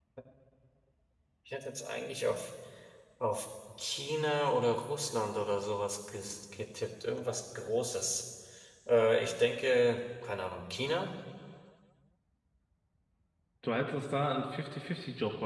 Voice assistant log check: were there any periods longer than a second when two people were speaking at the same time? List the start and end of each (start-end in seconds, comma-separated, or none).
none